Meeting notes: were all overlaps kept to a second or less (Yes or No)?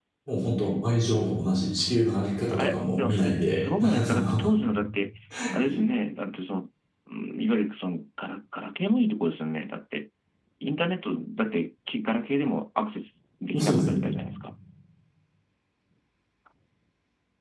No